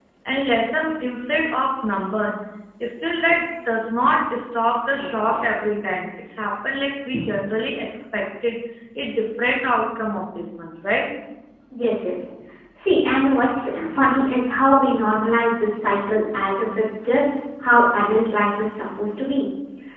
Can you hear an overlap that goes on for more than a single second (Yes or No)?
No